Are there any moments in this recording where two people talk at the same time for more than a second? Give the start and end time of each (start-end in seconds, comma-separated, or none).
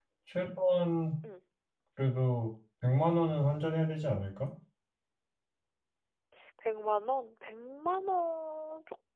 none